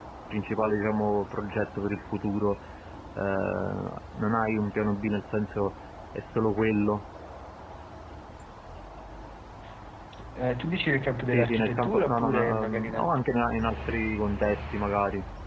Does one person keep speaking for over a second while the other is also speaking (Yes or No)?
Yes